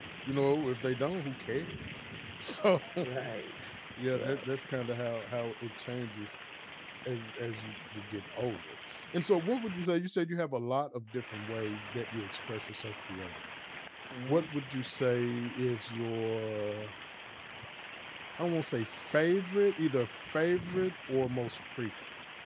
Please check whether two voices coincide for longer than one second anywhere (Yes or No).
No